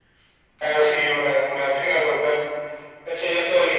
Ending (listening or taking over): listening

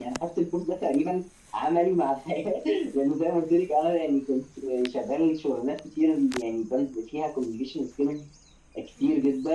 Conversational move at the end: listening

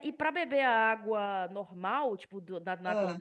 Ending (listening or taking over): listening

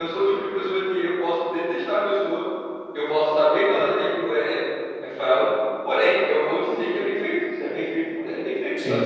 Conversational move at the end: taking over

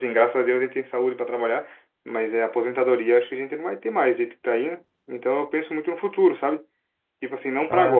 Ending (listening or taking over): listening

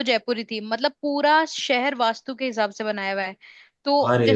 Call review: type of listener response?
listening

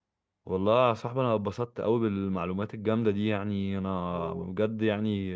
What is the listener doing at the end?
listening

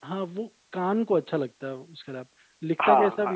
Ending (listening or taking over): taking over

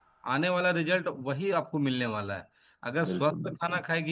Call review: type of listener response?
listening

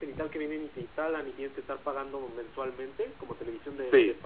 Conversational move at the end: listening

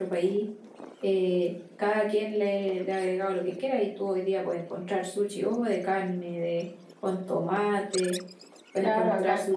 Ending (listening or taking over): taking over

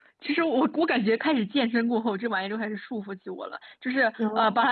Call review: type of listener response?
listening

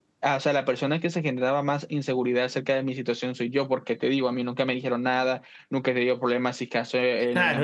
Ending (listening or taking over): taking over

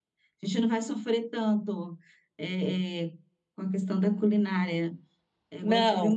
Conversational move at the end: listening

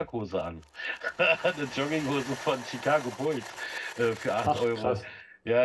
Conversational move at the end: listening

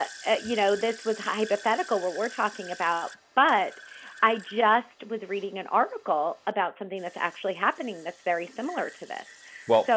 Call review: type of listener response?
listening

